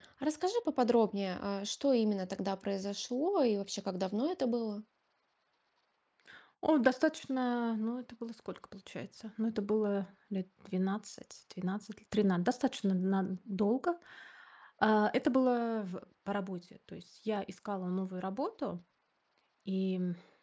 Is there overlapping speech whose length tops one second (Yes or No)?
No